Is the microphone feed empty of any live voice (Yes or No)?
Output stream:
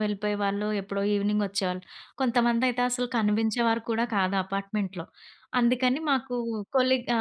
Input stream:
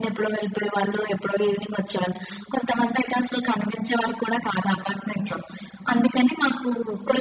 Yes